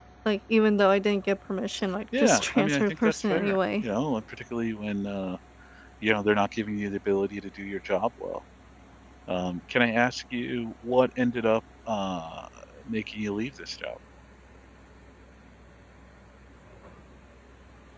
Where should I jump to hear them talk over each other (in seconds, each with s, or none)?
2.1 s